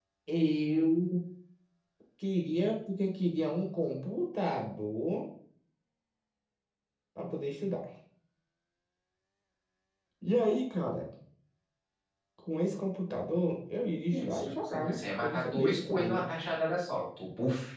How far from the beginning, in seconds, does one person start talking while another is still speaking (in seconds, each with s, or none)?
14.1 s